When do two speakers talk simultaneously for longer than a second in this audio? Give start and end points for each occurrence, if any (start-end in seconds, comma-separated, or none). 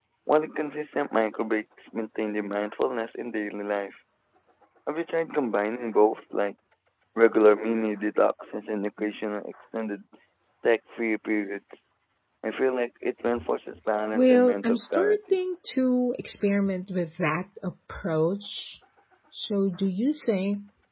14.1-15.4